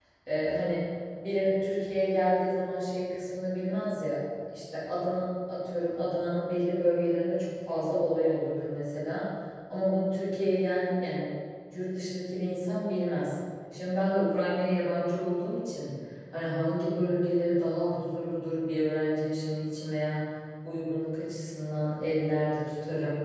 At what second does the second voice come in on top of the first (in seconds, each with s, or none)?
none